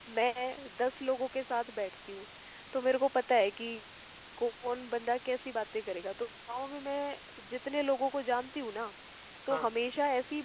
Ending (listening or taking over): listening